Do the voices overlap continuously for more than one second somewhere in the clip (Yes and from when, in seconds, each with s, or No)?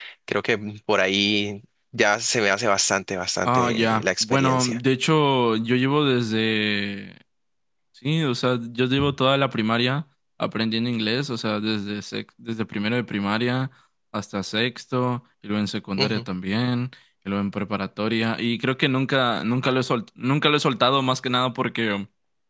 Yes, from 3.5 s